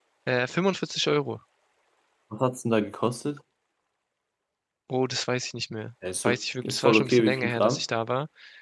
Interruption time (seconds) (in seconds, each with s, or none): 6.0 s